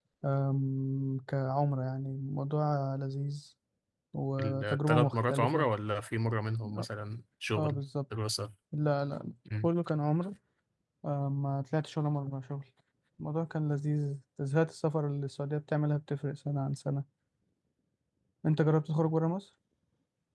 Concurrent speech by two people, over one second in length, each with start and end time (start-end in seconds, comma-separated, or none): 4.4-5.7